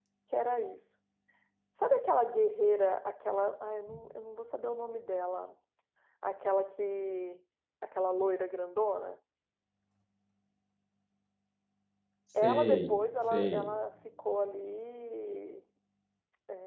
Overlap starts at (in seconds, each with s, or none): 12.3 s